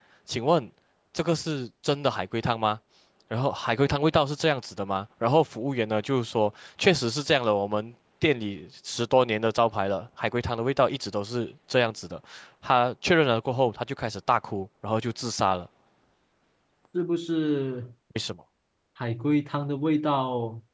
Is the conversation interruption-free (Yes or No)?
Yes